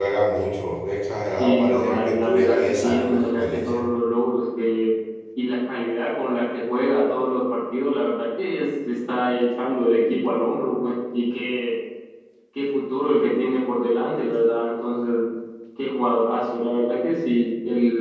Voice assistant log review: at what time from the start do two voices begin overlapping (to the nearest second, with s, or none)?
1 s